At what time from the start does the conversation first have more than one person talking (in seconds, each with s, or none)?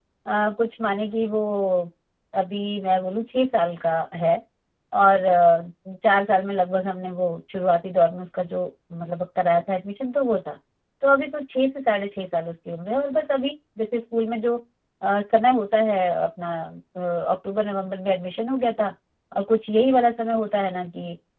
none